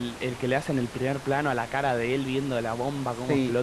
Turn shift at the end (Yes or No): Yes